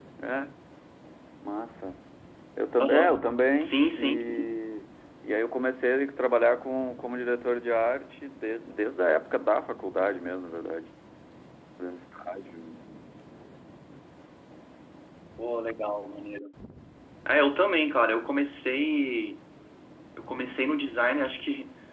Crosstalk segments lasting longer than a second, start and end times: 2.8-4.6

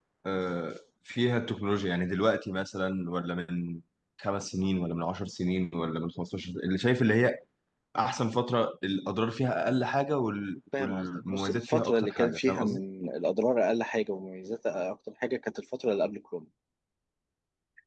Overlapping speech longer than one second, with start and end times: 10.8-12.8

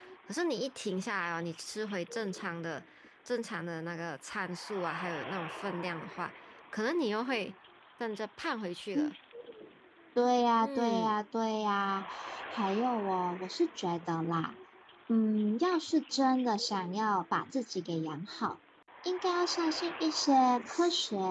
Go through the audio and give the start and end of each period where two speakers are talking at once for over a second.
none

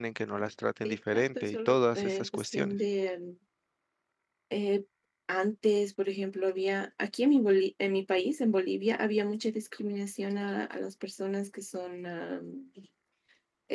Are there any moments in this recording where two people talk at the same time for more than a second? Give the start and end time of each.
0.8-2.8

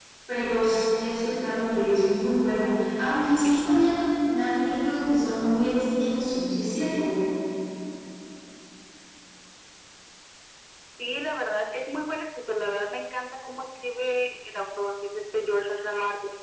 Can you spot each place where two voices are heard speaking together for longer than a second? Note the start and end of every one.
none

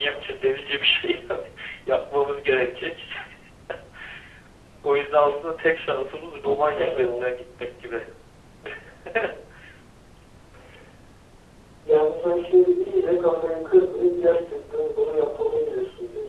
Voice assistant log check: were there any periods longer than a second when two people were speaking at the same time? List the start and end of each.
none

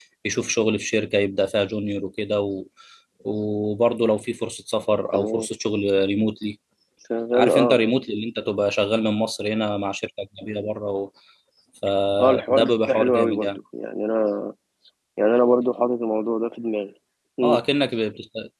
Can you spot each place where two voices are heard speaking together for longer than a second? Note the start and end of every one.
12.2-13.5

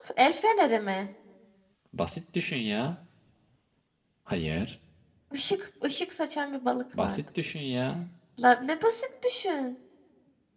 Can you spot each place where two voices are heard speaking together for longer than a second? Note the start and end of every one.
none

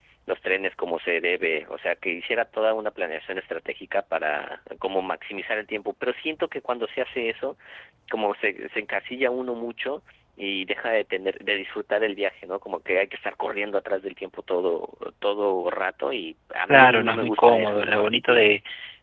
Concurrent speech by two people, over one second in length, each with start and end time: 16.7-18.4

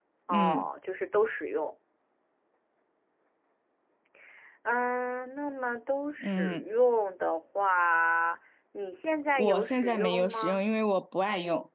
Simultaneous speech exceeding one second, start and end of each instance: 9.4-10.6

